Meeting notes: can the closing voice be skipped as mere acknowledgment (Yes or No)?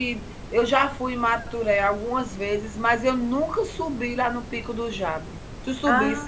No